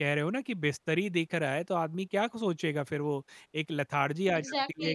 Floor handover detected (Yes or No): Yes